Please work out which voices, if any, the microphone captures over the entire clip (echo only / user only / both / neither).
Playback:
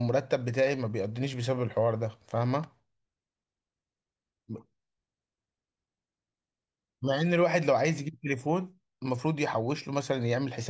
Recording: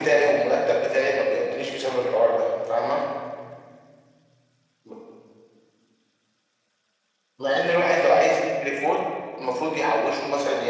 echo only